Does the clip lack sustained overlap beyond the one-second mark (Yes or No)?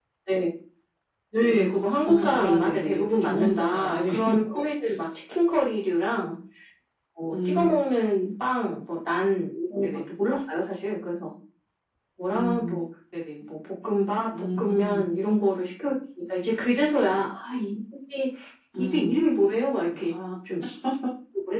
No